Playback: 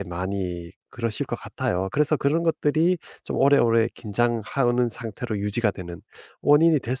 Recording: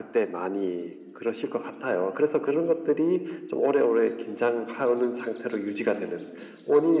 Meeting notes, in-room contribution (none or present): none